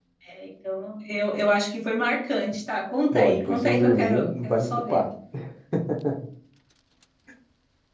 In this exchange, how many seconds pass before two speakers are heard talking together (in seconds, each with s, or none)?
3.1 s